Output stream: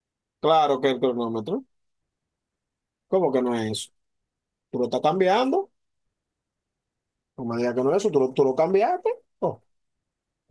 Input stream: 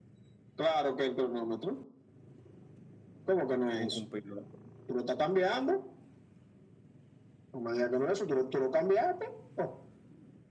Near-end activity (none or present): present